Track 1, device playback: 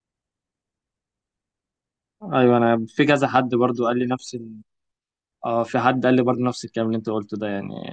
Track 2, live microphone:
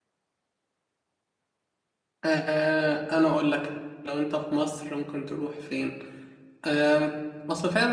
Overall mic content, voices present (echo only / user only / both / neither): user only